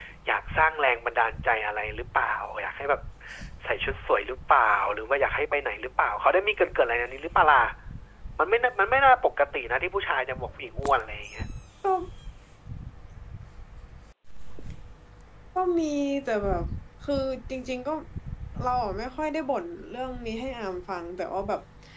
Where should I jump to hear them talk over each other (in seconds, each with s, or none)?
none